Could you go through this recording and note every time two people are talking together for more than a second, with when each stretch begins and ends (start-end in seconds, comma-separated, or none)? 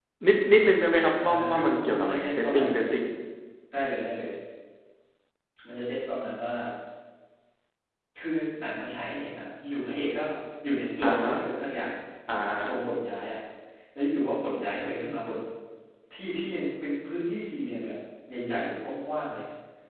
1.2-2.8